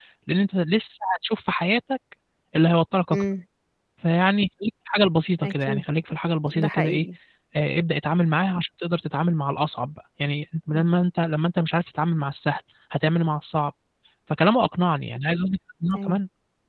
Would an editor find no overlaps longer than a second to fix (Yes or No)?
Yes